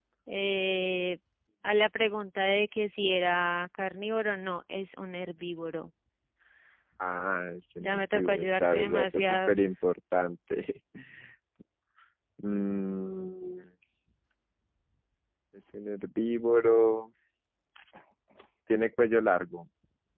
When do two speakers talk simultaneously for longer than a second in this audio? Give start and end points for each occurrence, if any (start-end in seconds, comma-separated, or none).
7.8-9.6